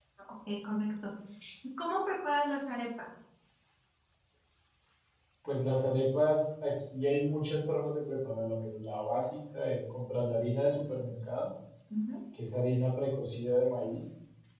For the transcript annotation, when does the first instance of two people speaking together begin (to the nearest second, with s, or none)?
none